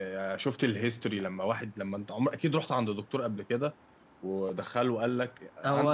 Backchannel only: No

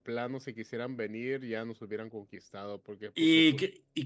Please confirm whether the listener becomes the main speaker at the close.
Yes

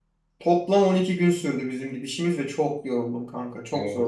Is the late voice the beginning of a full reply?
Yes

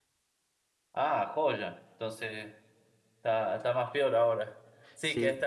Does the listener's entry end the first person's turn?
No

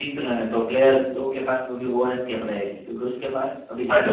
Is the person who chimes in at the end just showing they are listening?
No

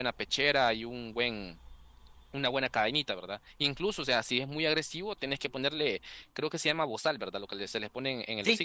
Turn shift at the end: Yes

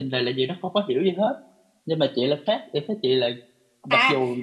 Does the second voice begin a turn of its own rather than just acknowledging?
Yes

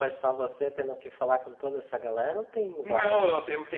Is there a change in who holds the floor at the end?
Yes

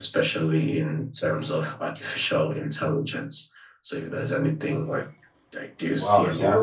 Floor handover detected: Yes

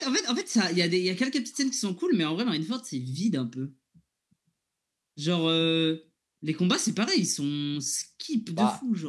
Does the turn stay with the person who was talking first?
No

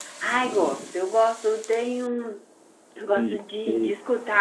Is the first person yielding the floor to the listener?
No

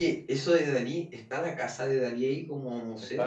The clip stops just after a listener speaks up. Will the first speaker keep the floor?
No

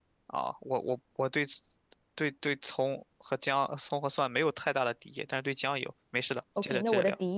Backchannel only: No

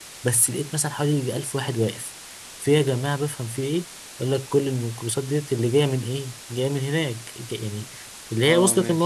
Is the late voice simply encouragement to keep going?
Yes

